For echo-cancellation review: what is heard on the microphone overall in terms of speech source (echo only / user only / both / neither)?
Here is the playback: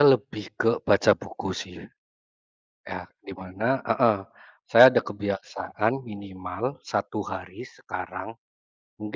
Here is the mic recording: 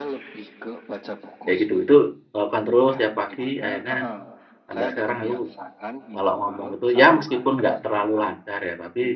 both